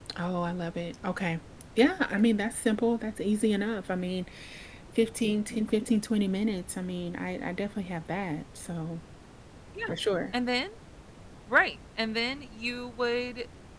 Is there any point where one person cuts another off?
No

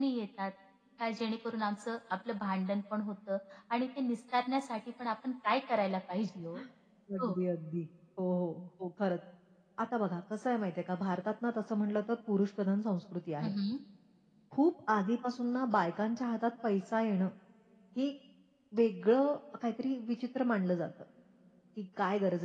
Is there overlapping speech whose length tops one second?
No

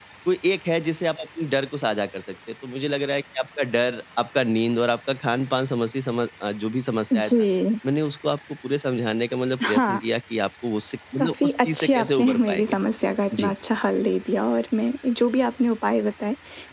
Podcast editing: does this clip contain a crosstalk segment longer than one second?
Yes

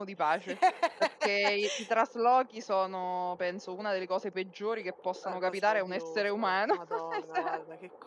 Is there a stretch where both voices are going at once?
Yes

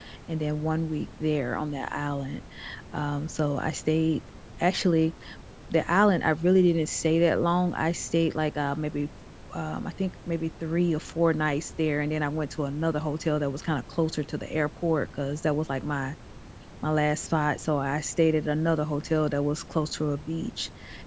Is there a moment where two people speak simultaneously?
No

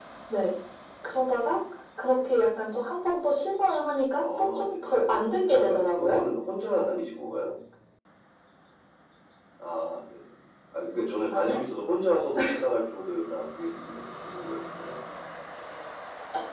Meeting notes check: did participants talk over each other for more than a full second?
Yes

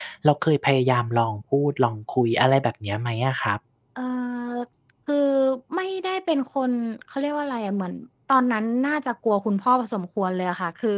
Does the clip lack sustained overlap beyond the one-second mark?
Yes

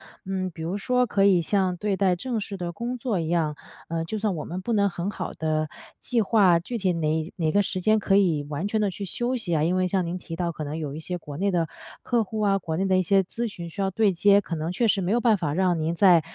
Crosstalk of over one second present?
No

